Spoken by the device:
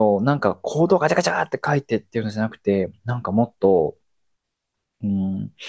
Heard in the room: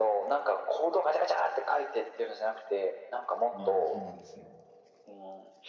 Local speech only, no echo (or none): まあ、そうなんですね。